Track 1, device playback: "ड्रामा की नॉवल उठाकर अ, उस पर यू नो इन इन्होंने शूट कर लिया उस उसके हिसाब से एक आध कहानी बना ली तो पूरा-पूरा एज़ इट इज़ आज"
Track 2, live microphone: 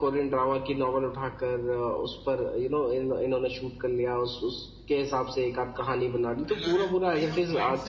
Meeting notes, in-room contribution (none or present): present